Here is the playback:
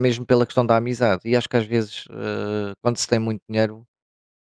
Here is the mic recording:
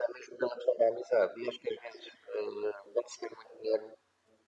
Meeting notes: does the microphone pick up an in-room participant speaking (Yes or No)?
No